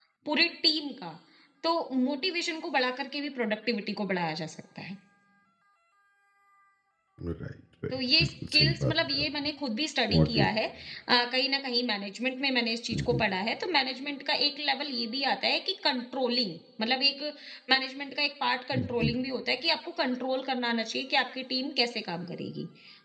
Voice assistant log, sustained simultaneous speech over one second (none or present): present